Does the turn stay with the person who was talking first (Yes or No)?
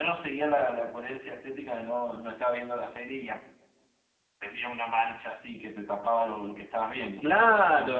No